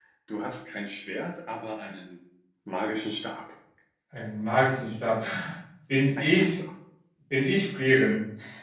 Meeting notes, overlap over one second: none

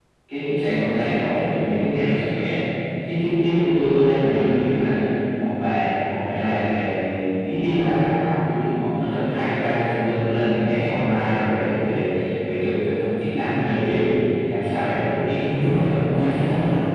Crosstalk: present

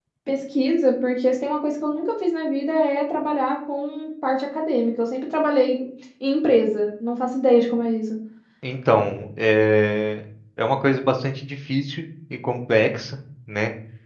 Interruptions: none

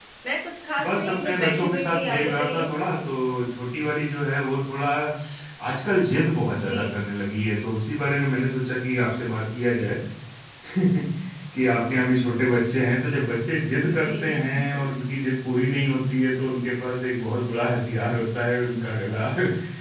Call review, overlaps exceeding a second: present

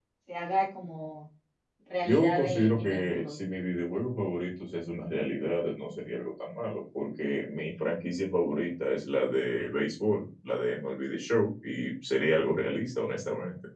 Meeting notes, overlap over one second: present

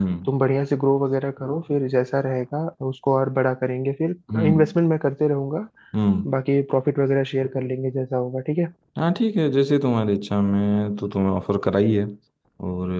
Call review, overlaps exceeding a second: none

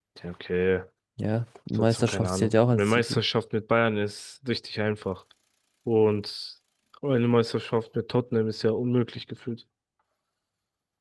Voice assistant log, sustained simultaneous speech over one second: present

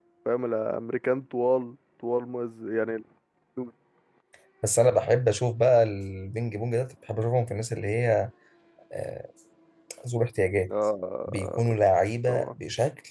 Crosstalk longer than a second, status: none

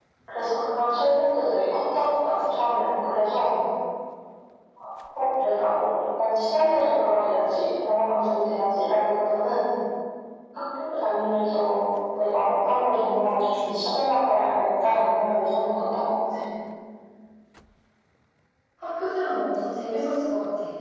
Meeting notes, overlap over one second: none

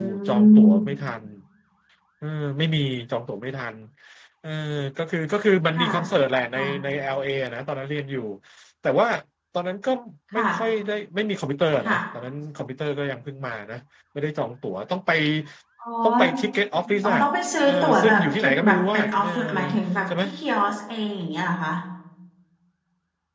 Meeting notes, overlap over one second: present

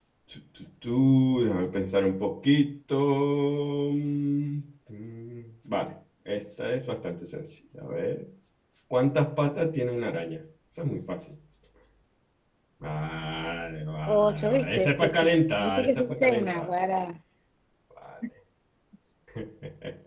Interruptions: present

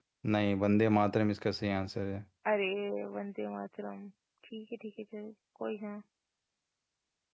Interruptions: none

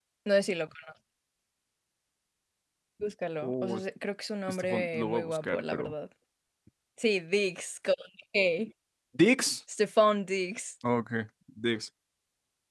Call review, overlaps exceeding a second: present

